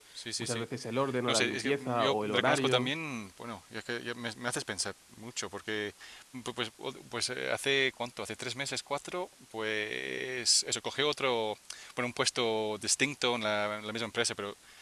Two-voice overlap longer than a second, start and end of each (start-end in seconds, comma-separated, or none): 1.3-2.9